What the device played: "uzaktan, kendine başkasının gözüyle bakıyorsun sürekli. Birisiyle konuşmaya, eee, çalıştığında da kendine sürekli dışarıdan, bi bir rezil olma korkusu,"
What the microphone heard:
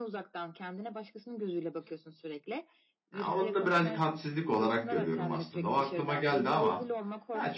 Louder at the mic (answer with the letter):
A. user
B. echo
A